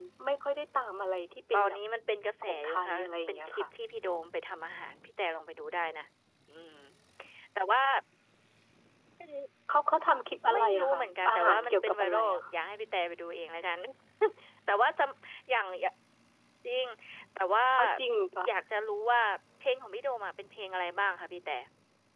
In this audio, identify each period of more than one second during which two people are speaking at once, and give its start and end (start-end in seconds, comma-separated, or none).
2.4-3.6, 10.5-12.4